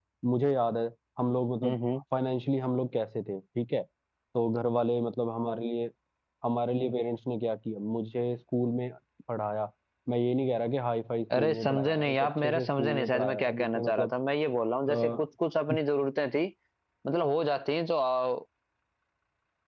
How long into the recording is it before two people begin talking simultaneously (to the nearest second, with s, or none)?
11 s